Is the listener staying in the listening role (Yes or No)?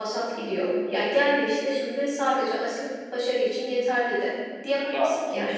Yes